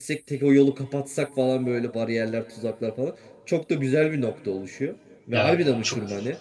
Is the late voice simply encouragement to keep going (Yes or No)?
Yes